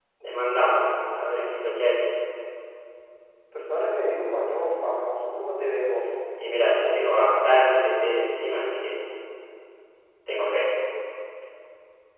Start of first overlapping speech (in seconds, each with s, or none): none